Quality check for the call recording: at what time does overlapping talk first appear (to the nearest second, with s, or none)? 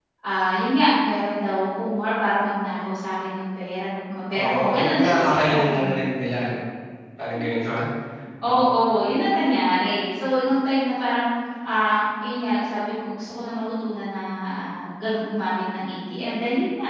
4 s